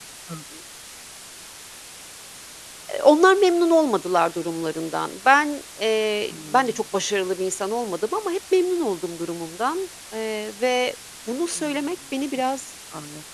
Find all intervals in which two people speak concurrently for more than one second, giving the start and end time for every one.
none

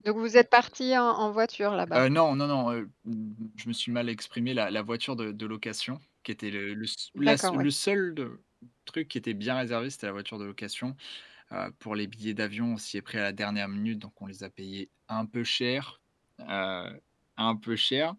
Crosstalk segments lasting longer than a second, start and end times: none

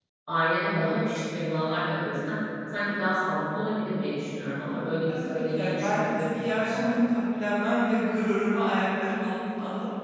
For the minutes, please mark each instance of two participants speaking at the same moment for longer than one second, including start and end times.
5.1-6.8

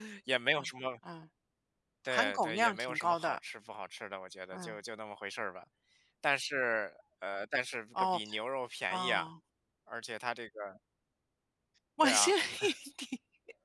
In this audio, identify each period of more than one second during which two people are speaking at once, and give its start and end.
2.1-3.4

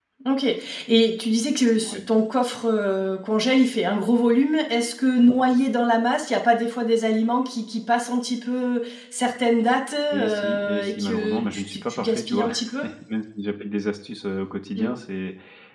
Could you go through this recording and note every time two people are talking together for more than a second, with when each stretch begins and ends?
10.1-12.9

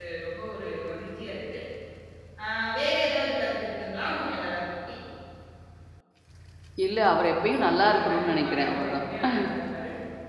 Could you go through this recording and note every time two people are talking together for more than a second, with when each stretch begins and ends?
7.8-9.1

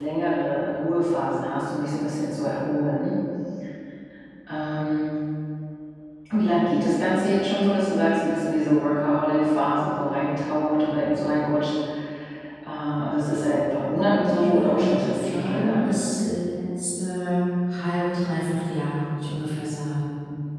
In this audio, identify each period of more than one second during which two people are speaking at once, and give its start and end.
13.8-15.9

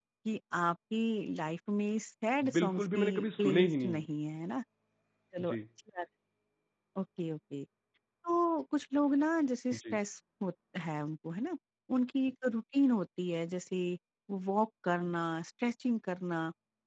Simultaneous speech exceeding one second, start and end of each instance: 2.5-4.0

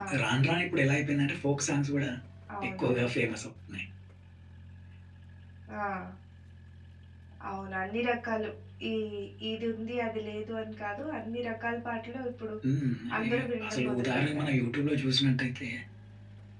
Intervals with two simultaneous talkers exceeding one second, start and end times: 13.2-14.5

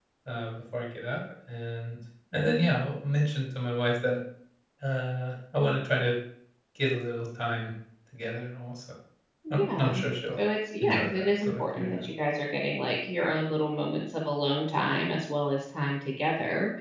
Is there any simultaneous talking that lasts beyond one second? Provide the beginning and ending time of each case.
10.8-12.0

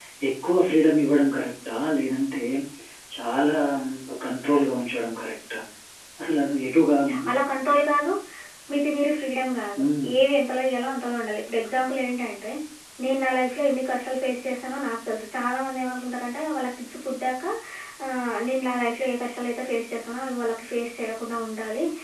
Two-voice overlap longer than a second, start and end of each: none

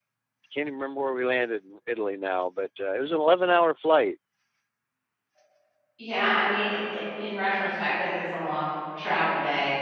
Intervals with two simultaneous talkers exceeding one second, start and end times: none

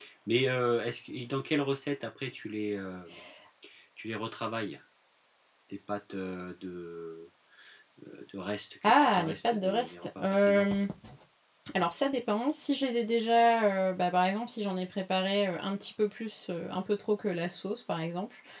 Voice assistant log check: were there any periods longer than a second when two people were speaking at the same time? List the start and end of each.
8.8-10.6

